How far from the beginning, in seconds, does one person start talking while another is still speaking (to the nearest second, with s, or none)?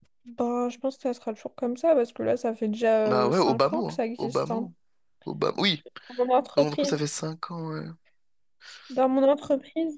3 s